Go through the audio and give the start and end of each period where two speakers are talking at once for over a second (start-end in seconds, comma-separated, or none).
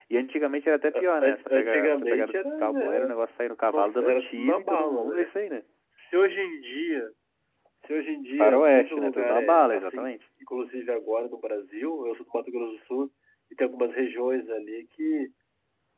0.9-3.1, 3.7-5.3, 8.4-10.1